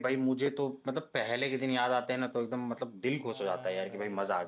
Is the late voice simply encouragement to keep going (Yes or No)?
No